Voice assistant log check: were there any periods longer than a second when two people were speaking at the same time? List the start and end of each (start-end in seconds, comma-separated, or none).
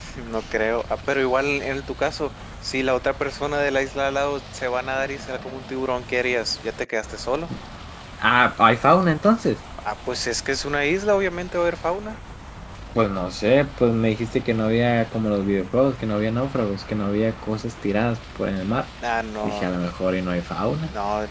none